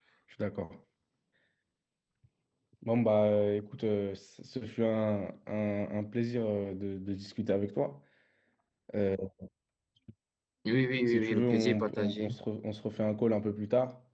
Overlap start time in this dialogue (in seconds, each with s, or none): 11.1 s